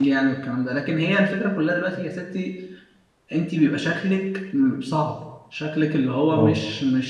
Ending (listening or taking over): listening